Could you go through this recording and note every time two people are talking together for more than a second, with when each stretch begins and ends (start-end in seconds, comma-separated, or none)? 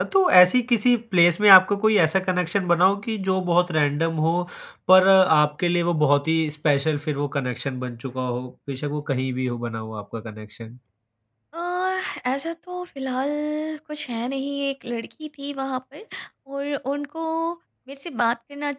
none